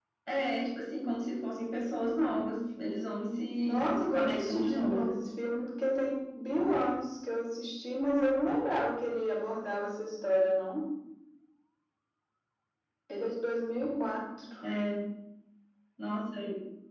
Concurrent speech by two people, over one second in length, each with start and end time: 3.6-5.2

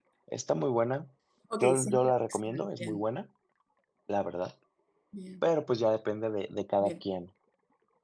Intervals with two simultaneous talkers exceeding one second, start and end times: 1.6-3.0

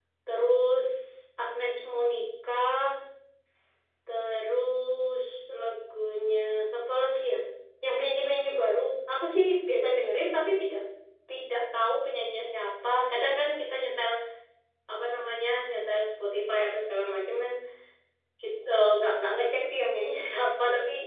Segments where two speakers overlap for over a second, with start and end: none

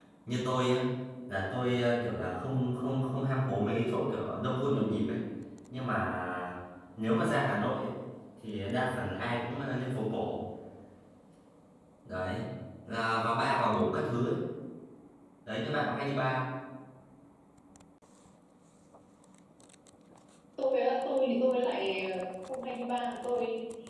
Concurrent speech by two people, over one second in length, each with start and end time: none

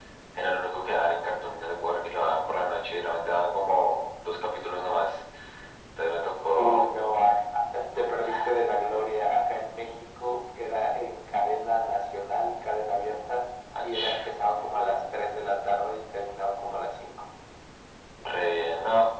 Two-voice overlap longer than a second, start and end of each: none

